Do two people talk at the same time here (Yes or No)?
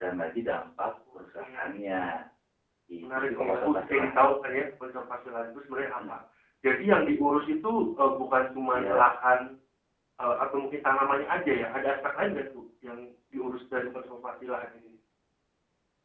Yes